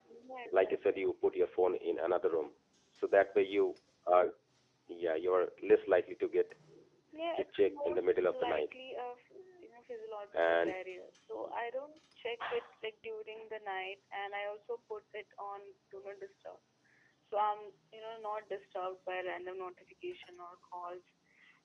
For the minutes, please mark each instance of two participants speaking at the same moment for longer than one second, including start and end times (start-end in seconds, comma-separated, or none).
7.4-8.7